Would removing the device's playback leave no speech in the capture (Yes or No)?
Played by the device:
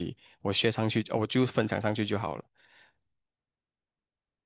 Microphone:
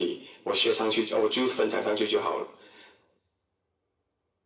Yes